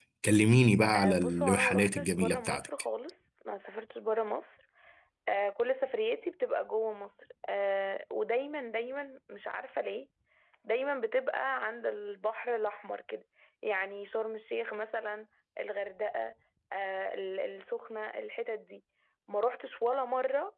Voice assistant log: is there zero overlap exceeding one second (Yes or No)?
No